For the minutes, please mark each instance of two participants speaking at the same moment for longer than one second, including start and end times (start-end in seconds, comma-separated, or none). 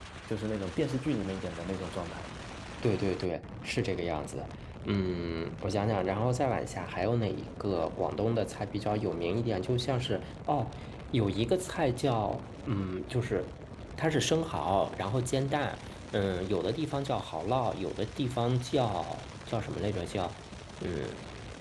none